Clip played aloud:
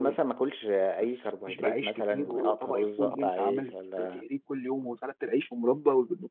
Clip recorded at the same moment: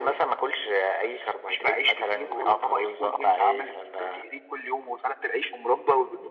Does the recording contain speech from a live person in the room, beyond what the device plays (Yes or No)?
No